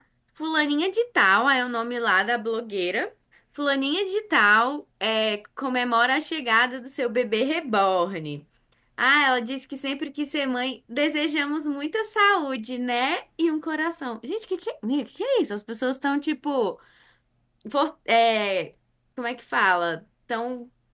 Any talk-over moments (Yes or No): No